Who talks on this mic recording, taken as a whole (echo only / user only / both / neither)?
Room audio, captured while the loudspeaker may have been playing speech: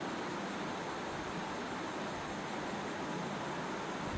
neither